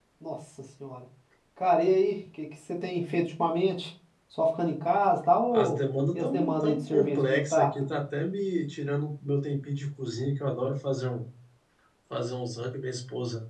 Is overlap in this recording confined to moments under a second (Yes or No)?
No